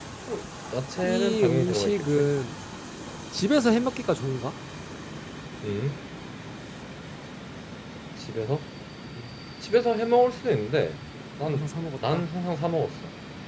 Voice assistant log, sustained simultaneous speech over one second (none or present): present